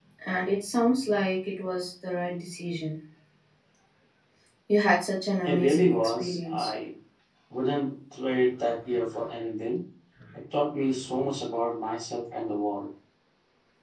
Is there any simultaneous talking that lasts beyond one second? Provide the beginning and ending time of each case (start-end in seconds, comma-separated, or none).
5.4-6.7